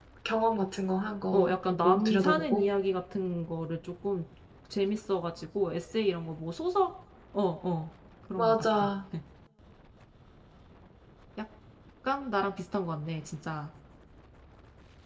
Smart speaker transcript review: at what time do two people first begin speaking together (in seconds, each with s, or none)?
1.3 s